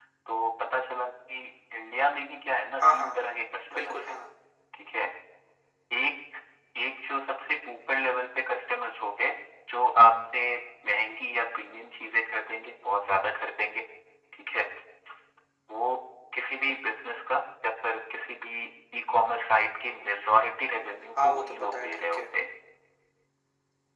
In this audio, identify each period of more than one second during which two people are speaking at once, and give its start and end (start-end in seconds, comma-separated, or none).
20.8-22.3